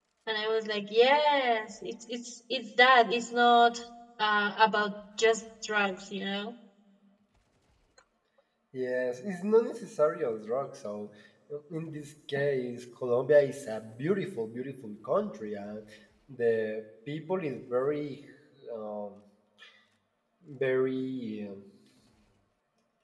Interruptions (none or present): none